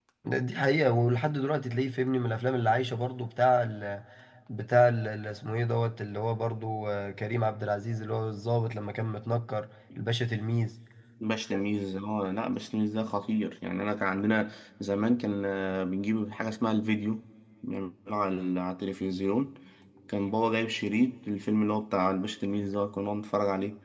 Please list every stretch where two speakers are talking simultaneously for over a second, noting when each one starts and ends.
none

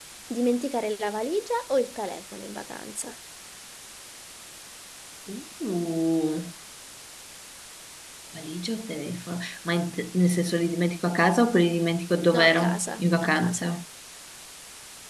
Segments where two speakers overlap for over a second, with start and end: 12.3-13.7

